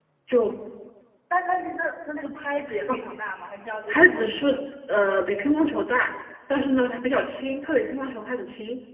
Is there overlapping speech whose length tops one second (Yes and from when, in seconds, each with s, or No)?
No